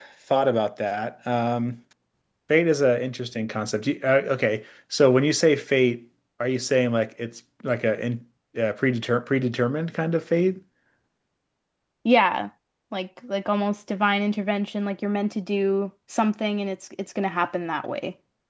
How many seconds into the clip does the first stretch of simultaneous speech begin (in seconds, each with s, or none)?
none